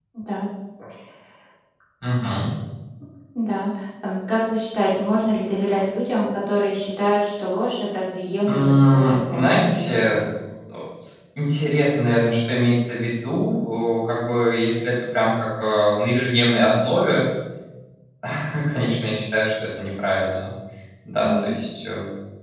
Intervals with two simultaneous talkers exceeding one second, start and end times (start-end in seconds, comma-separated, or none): 8.5-10.2